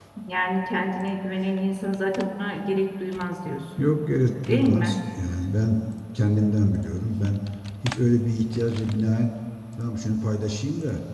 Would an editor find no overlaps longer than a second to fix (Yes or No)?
Yes